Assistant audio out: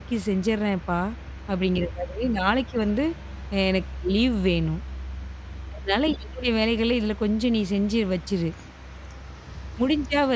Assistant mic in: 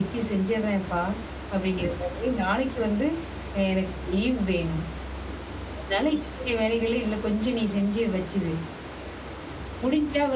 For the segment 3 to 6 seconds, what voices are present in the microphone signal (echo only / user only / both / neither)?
echo only